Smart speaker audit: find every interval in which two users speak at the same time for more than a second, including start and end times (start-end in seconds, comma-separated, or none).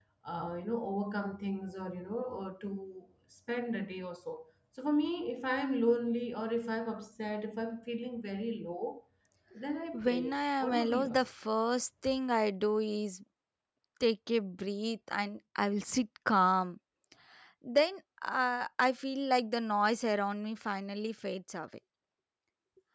9.9-11.2